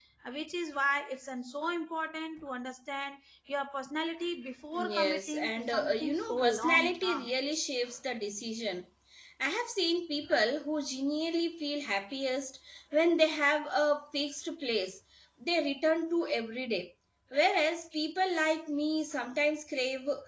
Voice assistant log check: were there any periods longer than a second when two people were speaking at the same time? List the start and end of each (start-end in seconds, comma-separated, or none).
4.8-7.3